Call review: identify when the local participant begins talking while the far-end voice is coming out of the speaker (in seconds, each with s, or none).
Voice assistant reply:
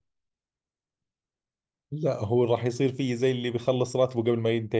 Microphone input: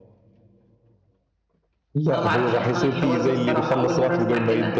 2.1 s